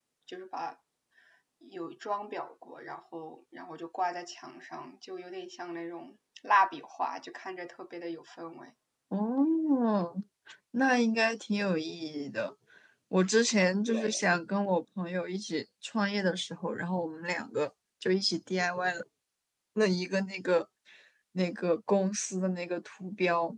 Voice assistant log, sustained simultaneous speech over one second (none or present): none